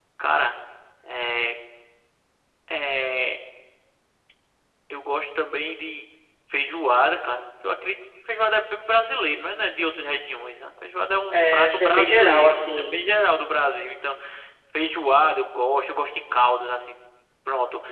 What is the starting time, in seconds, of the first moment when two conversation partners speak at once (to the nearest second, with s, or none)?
11 s